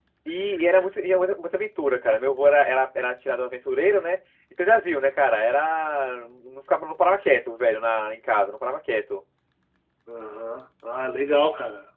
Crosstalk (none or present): none